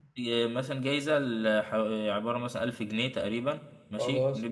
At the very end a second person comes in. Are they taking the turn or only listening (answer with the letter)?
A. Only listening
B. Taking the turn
A